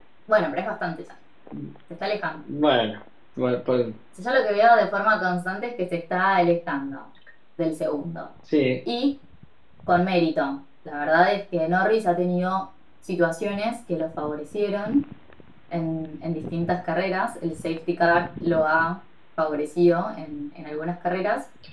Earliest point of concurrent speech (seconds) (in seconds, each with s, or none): none